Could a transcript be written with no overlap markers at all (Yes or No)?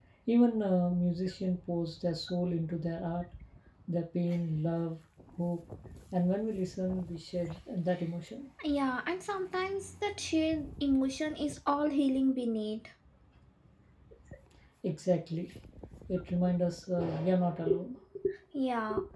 Yes